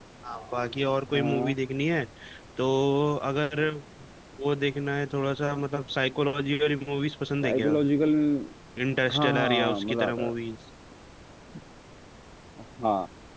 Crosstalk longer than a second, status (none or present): present